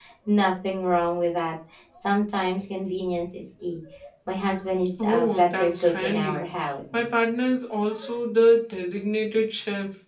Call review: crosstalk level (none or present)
present